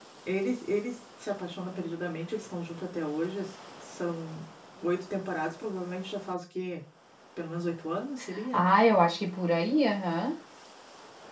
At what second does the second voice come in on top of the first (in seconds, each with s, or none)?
none